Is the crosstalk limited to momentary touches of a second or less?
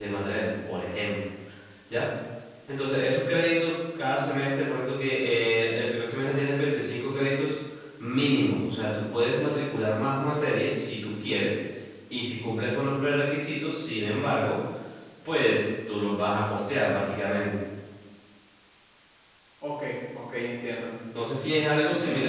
Yes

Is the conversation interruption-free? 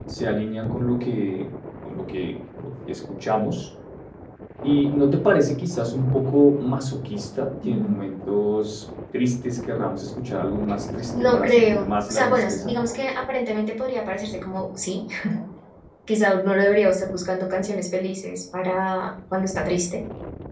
No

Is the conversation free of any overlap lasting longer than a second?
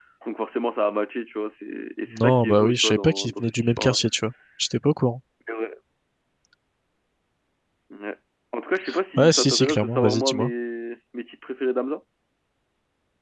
No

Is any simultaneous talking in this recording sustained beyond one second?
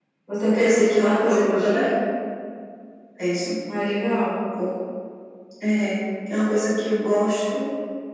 Yes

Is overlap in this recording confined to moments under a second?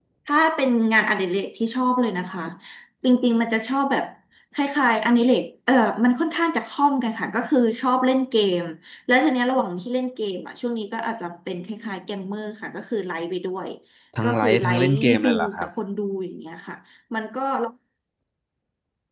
No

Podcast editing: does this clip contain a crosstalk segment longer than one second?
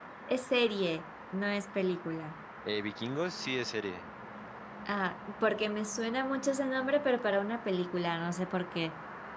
No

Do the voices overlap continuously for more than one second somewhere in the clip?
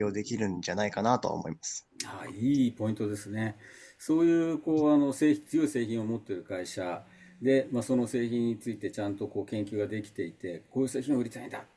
No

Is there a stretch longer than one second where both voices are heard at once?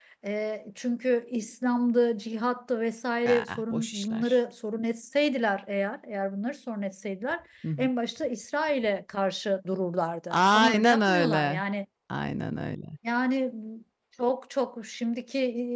Yes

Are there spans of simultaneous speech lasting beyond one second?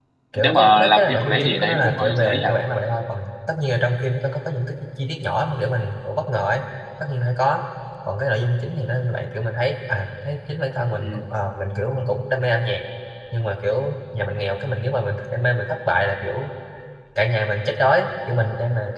Yes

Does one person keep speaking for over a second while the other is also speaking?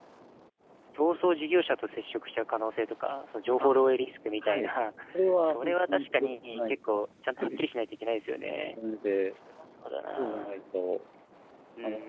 Yes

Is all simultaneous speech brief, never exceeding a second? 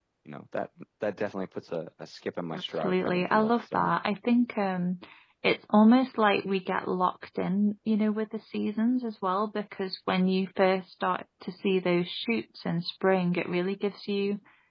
No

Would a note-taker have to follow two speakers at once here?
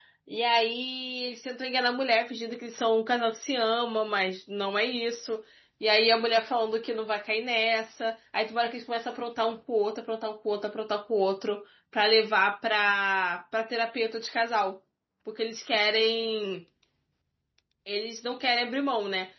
No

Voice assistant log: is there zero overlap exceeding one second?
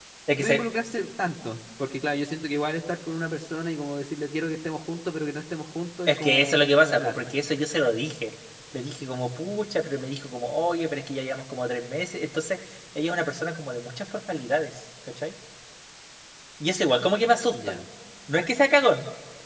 No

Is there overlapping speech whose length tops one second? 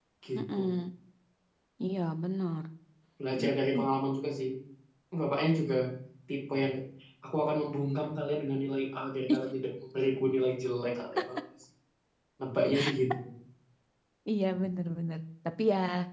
No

